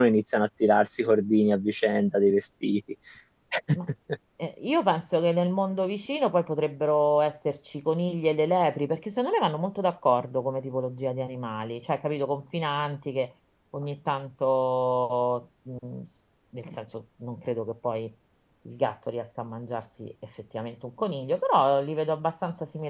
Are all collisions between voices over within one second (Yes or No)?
Yes